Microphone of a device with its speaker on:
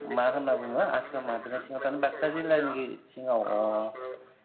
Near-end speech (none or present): present